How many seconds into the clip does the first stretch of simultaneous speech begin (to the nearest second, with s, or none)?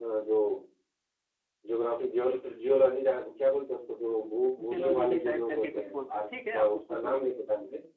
5 s